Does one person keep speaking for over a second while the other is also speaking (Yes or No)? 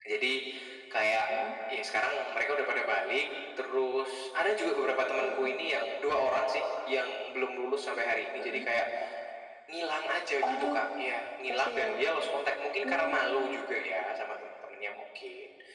No